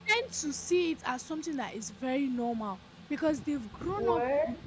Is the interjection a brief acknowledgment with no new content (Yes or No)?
Yes